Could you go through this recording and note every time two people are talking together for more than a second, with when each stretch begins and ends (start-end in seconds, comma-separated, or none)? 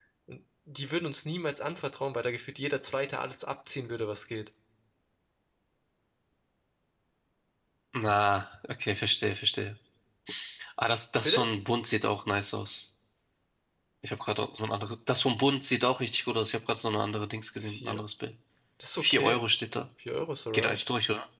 none